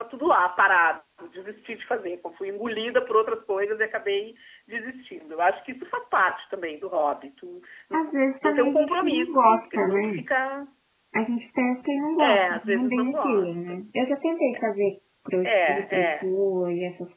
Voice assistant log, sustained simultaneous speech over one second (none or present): present